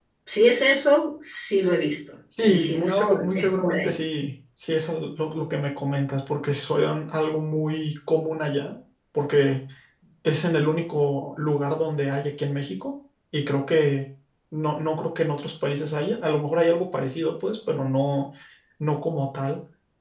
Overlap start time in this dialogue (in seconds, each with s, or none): 2.3 s